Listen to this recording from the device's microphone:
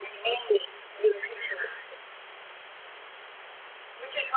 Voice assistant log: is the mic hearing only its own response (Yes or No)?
Yes